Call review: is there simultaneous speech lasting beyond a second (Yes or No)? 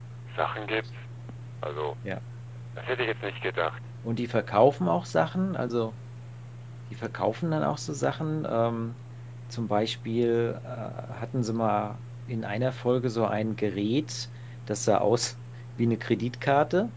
No